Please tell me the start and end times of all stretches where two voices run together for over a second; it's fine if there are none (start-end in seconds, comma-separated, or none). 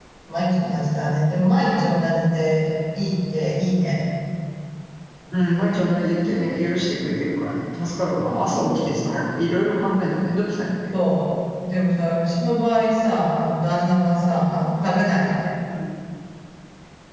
none